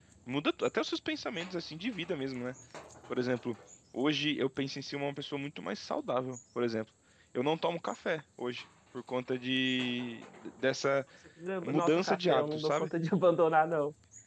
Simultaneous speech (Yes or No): Yes